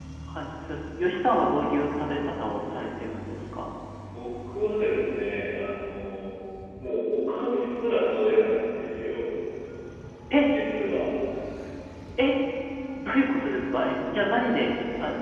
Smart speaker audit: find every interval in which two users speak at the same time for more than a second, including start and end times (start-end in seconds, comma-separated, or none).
none